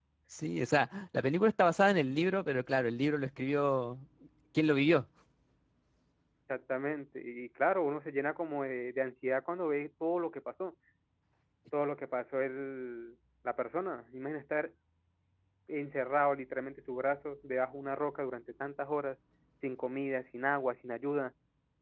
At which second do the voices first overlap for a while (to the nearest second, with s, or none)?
none